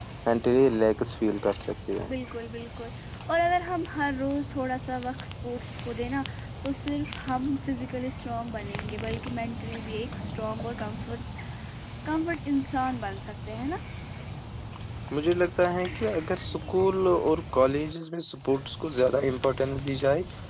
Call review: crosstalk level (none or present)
none